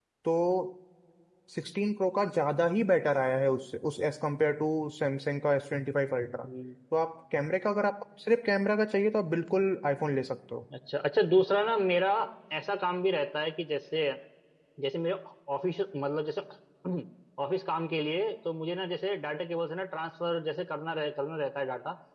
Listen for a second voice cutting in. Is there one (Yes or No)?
No